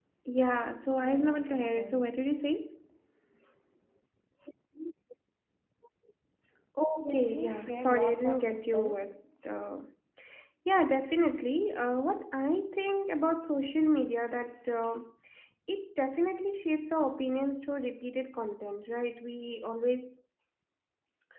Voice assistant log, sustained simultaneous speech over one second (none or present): present